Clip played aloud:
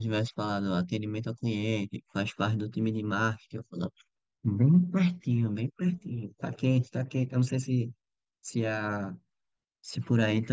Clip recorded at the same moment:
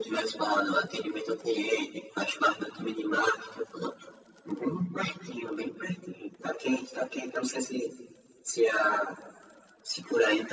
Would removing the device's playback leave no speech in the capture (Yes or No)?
Yes